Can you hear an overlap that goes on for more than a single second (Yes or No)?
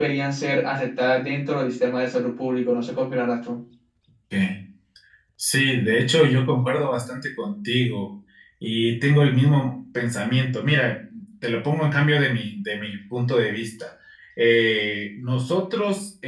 No